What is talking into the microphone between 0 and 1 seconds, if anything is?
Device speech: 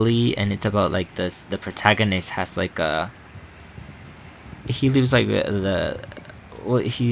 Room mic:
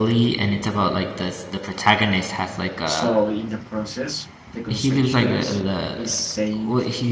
echo only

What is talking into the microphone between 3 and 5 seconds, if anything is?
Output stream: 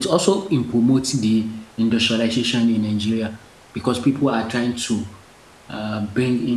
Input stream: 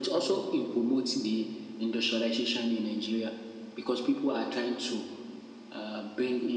echo only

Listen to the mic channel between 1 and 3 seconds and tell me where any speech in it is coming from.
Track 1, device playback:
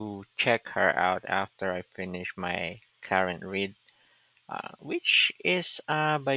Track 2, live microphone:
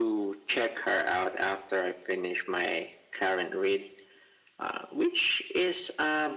echo only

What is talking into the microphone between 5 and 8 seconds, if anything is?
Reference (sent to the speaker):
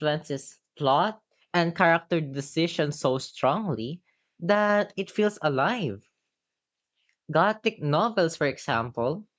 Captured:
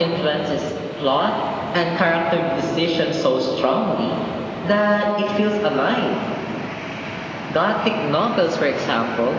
echo only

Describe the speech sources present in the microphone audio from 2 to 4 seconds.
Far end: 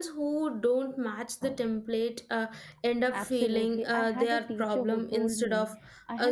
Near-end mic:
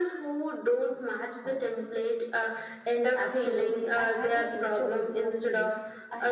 echo only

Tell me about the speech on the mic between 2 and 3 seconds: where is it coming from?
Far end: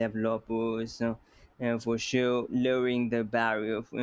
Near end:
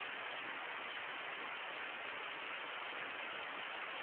neither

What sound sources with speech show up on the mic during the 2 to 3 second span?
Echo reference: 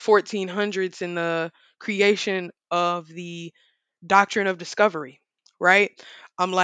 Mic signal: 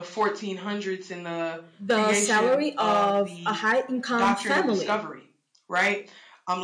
both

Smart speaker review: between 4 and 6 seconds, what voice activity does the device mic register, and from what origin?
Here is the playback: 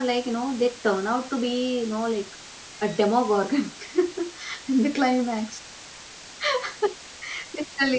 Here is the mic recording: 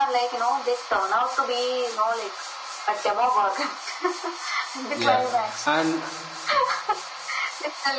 both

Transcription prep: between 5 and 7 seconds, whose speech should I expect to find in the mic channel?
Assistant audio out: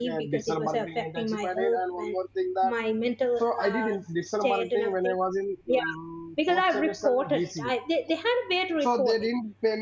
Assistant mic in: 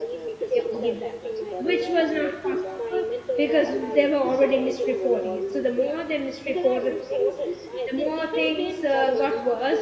both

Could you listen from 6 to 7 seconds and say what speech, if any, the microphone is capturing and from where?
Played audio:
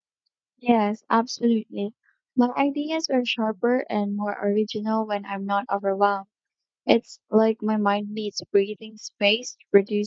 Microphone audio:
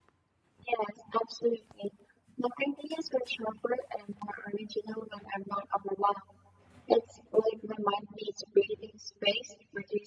echo only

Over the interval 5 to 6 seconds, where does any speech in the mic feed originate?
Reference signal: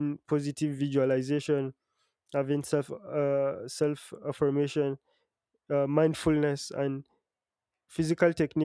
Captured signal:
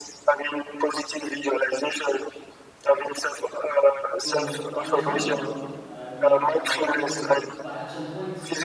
both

